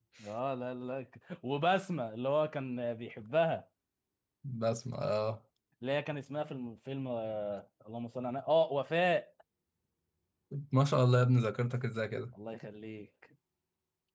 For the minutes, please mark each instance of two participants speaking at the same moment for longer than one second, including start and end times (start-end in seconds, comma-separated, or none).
none